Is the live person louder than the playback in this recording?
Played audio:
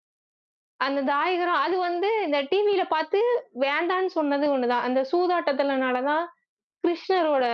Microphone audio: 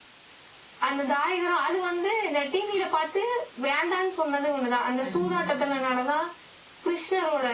No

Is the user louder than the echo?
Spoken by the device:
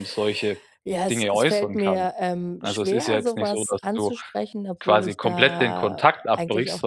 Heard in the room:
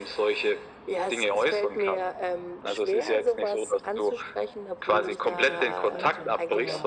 No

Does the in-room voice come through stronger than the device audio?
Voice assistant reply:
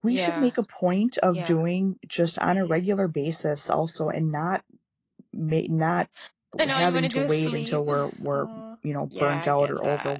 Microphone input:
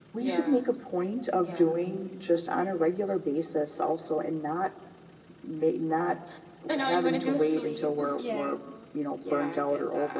No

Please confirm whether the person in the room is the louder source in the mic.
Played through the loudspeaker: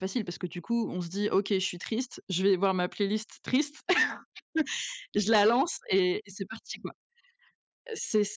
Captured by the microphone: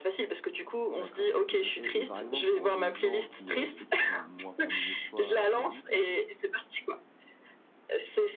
No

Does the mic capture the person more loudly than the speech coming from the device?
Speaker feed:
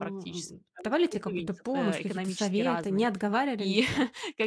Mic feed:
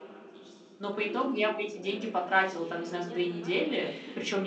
Yes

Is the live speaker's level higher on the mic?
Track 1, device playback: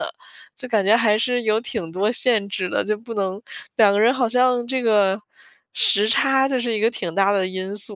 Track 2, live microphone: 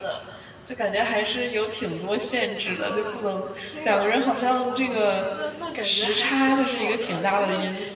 No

